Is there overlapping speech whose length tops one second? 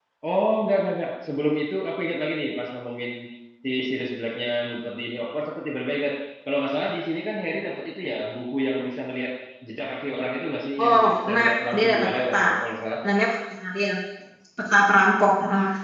Yes, from 10.8 s

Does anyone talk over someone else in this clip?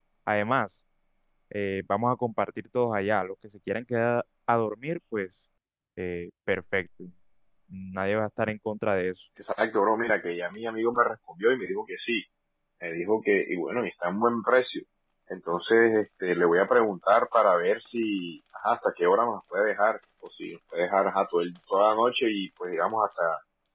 No

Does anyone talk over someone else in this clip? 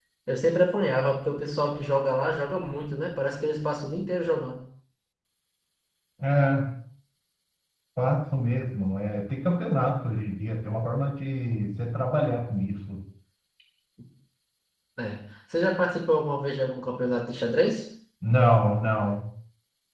No

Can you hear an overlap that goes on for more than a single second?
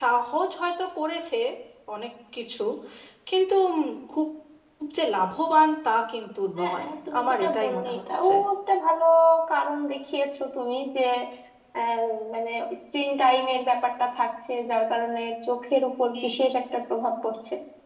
Yes, from 6.6 s

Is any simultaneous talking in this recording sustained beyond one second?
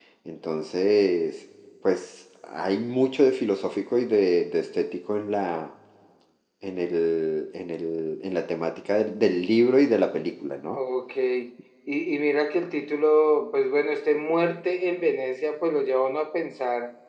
No

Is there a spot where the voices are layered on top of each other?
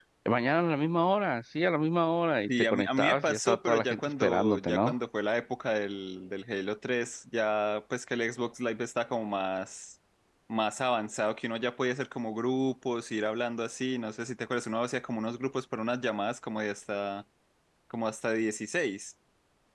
Yes, from 2.5 s

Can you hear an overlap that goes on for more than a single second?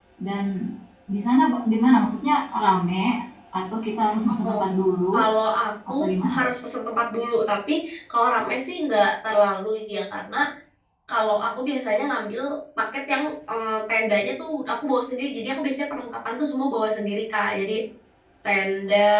No

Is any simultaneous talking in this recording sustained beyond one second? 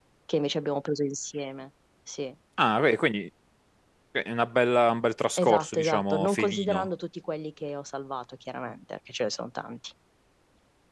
Yes, from 5.4 s

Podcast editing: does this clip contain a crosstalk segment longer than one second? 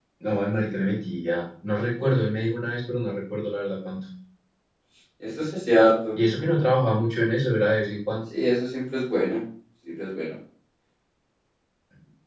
No

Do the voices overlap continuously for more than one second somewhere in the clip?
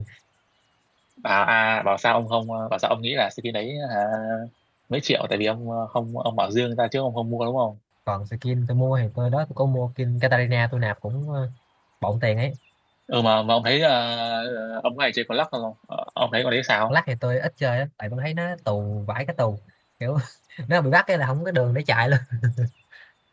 No

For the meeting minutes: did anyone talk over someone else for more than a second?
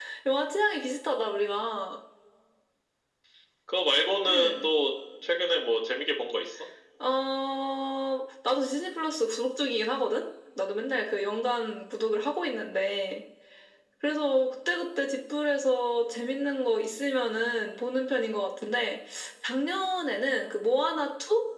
No

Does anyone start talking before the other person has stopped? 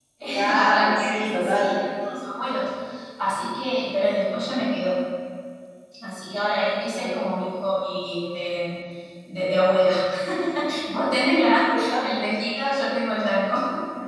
Yes, from 0.5 s

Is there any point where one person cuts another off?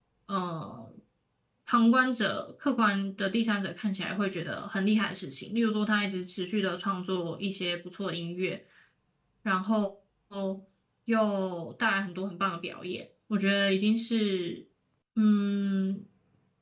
No

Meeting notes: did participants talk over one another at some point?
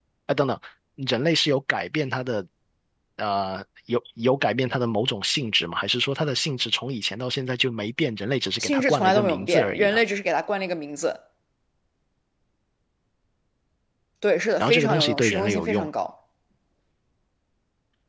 Yes, from 8.6 s

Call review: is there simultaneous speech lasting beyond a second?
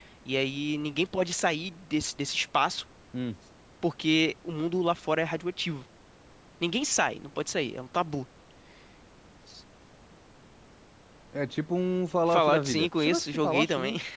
Yes, from 12.3 s

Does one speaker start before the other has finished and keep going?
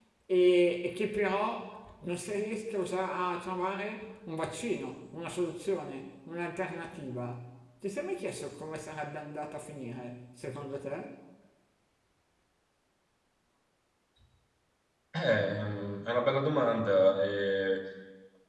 No

